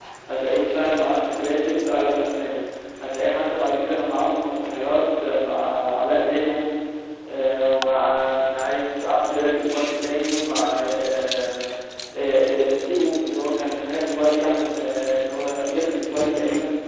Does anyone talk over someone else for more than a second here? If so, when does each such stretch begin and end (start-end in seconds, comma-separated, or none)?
none